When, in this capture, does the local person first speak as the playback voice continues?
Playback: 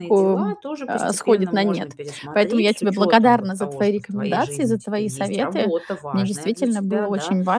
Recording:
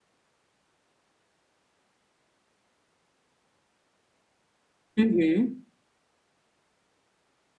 5.0 s

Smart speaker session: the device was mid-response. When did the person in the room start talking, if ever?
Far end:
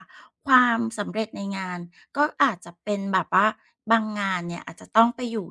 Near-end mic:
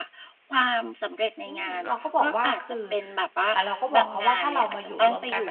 1.5 s

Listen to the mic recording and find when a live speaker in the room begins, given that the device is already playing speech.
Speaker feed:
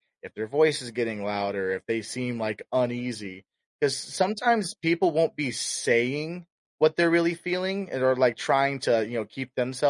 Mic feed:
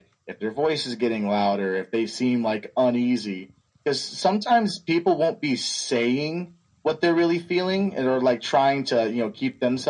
none

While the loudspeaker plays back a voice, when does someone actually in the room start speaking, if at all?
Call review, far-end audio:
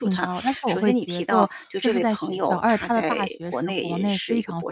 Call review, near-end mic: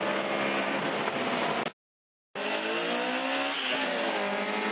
none

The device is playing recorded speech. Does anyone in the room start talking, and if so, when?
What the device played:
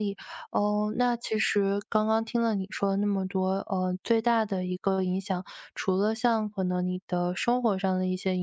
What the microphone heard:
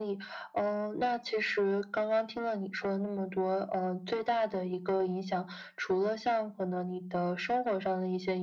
none

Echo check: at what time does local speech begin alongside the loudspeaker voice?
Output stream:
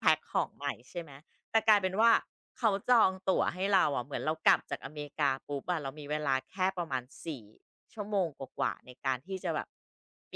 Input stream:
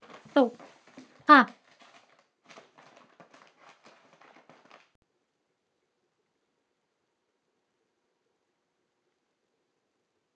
0.3 s

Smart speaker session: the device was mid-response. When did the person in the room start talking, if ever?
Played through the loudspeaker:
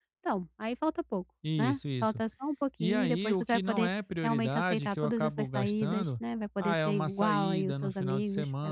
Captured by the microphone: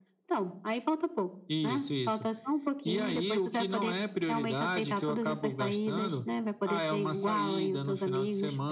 none

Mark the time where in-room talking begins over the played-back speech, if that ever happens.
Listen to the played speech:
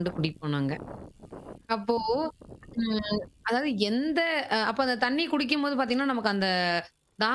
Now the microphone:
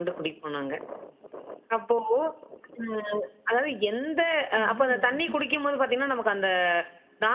4.6 s

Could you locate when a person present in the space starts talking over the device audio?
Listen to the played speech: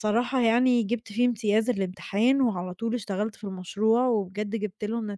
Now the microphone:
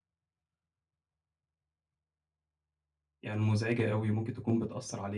3.2 s

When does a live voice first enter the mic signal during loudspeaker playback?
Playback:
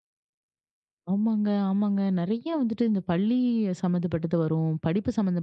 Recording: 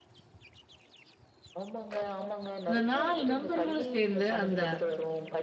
2.7 s

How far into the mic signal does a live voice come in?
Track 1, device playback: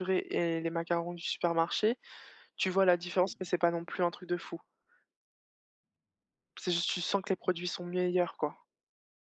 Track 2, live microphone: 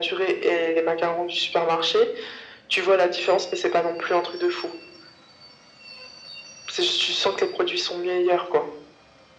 none

